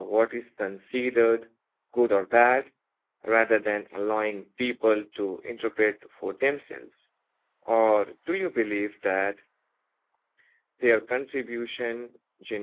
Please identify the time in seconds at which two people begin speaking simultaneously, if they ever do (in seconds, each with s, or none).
none